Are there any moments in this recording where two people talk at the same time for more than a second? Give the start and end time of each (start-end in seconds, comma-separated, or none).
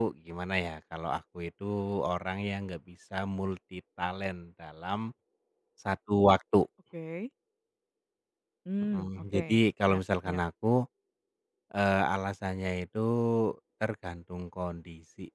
8.9-10.4